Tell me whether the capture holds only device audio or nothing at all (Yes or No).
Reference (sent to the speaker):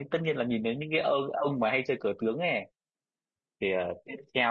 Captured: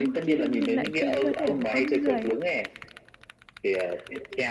No